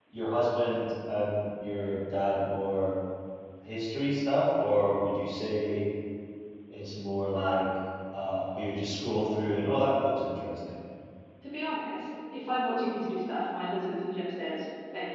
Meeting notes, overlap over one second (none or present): none